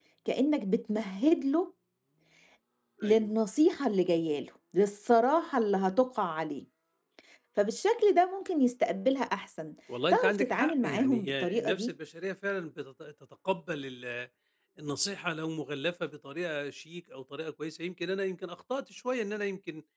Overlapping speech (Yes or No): Yes